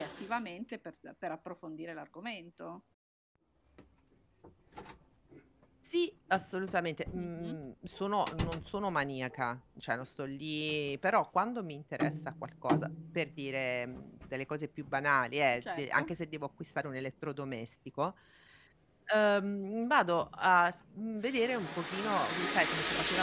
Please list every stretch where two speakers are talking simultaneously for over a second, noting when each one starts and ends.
none

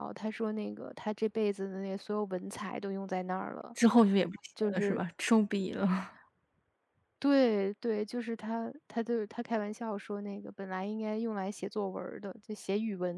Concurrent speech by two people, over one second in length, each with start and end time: none

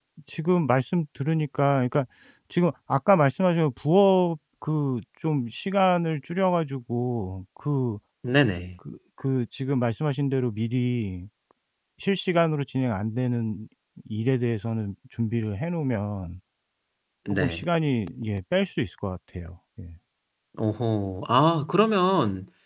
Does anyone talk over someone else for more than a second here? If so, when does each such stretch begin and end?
none

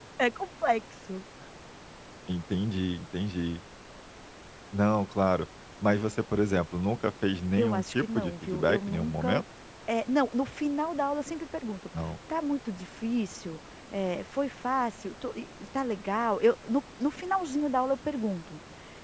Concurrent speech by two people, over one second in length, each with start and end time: 7.6-9.4

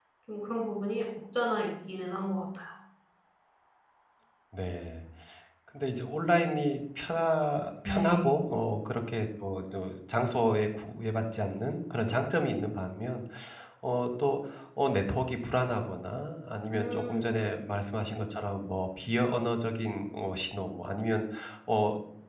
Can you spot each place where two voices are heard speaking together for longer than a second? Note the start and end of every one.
none

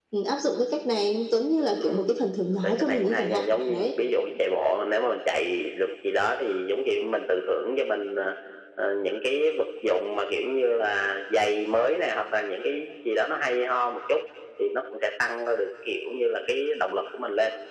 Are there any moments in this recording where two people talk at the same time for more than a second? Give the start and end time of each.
2.5-3.9

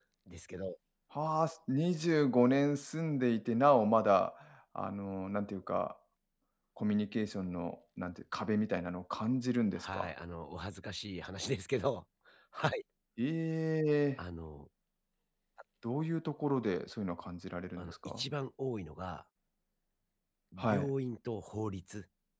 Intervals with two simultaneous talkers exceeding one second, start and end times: none

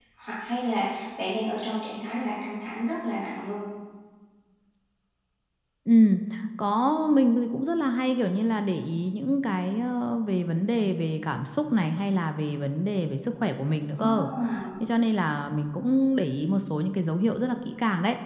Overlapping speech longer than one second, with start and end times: none

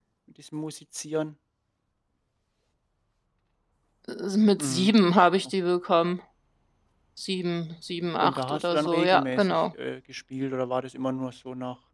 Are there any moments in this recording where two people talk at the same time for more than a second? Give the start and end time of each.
8.2-9.6

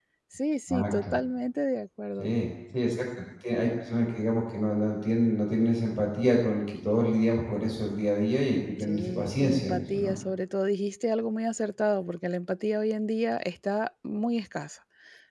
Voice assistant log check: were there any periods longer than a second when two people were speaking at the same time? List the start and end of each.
8.8-10.1

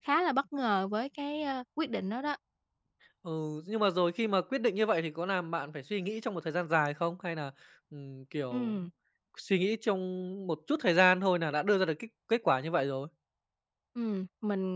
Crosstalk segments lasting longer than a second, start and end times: none

